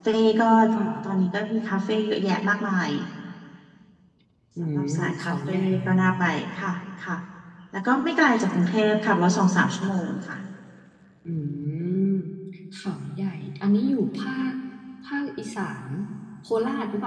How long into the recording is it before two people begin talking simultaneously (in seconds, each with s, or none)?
4.6 s